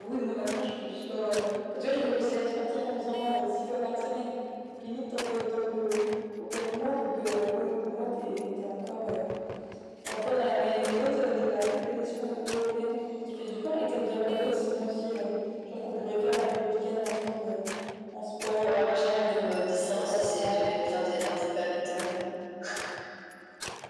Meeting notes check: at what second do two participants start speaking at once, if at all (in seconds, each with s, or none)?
18.6 s